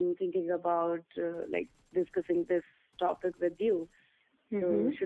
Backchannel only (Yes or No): No